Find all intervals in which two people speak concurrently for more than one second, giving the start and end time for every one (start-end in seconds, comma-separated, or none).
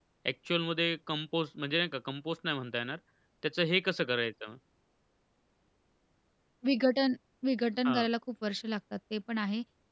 none